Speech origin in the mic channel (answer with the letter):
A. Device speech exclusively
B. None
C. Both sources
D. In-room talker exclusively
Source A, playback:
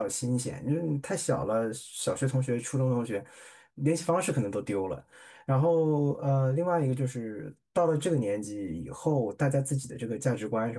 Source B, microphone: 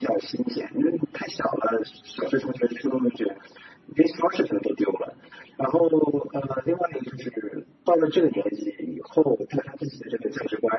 A